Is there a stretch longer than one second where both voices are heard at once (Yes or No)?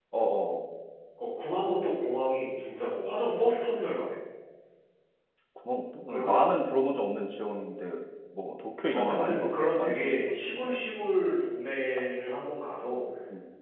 Yes